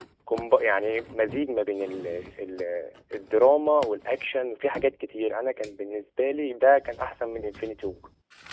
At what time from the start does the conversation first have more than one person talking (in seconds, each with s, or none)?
none